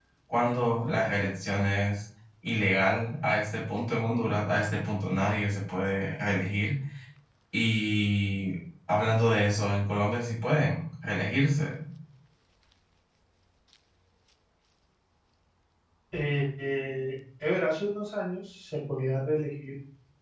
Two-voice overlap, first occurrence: none

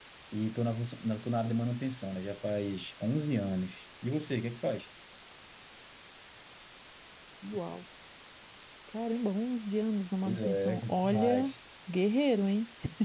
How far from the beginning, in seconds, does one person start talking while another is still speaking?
10.2 s

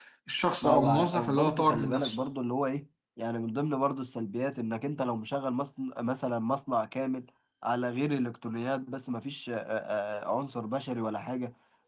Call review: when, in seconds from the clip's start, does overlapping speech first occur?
0.6 s

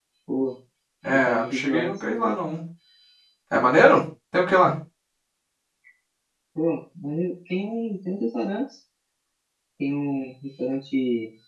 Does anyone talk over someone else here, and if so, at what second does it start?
1.0 s

